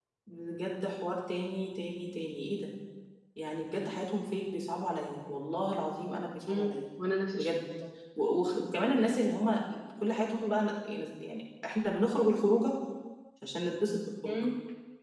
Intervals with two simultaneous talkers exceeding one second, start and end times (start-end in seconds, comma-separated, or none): none